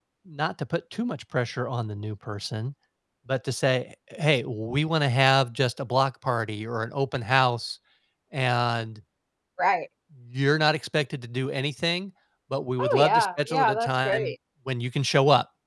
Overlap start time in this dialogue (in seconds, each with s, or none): 12.8 s